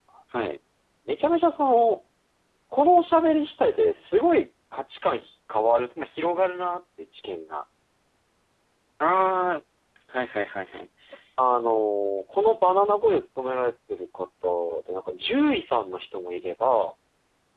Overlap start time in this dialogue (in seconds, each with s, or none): none